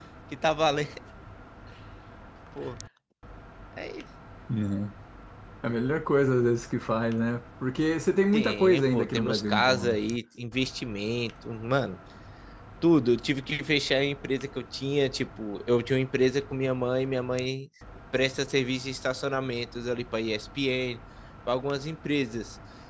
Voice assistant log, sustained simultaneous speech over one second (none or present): present